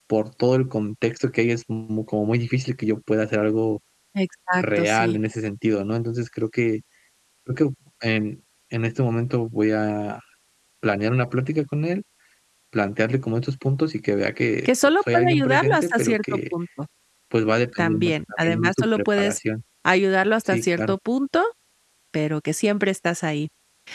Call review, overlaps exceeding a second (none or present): present